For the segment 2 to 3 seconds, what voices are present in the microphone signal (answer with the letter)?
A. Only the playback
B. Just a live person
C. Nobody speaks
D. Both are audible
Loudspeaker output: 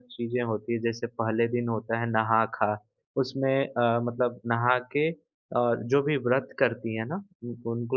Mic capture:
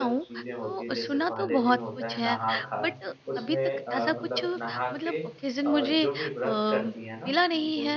D